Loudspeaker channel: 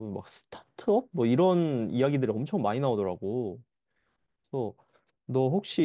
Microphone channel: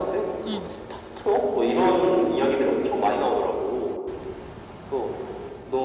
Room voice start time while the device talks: 0.5 s

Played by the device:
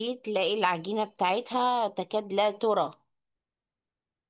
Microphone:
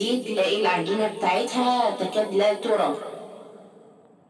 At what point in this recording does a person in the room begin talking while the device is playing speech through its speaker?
none

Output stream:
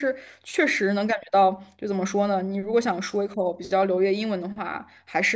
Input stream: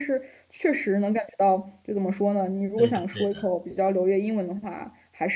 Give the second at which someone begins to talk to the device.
2.7 s

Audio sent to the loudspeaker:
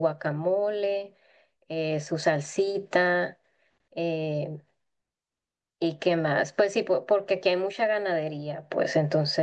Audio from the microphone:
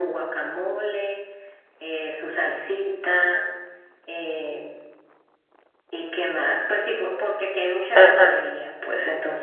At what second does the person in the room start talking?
7.9 s

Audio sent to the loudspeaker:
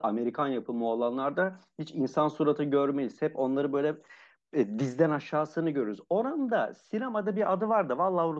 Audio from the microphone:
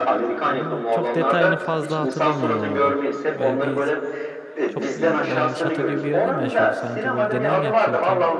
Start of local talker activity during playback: 0.5 s

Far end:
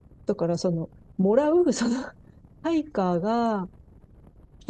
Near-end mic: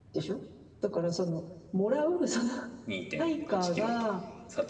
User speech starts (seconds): 2.9 s

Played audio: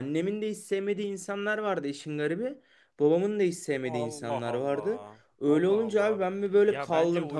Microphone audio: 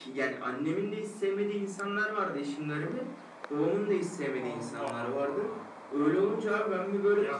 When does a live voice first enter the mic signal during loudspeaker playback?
none

